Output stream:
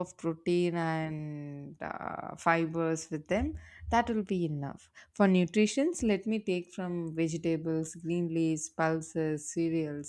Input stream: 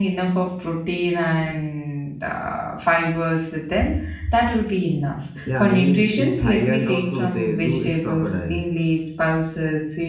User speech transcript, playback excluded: Yeah, I mean in Thailand also they do eat crocodile.

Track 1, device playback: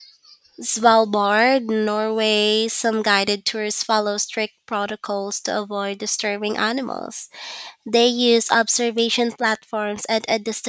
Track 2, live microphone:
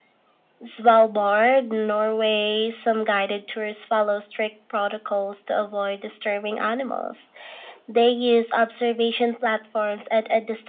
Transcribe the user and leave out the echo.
none

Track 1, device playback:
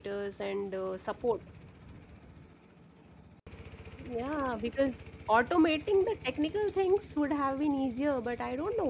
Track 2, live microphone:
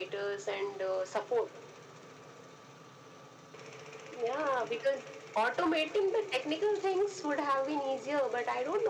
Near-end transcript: none

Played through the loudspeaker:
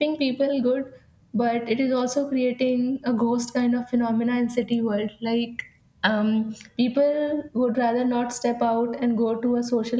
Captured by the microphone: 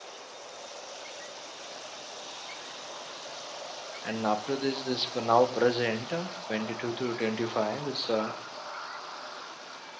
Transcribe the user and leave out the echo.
And after this, this p- now present uh, 22 to 25, this uh,

